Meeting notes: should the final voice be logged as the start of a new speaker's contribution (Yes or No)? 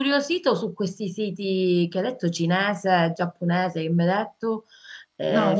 Yes